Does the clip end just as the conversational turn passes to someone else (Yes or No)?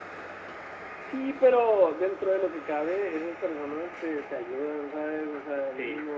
No